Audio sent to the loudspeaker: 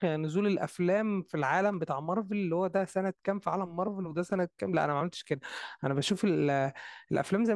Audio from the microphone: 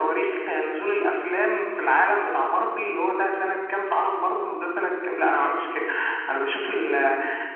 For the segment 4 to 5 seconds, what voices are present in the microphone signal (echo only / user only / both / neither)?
echo only